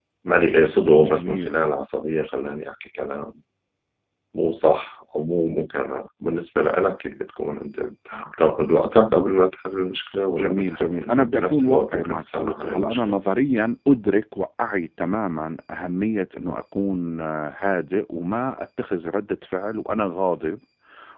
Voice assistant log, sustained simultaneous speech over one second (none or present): present